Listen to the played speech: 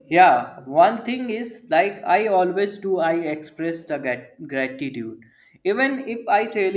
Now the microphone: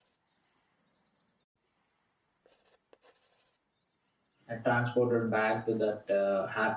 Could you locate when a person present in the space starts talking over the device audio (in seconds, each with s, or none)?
4.5 s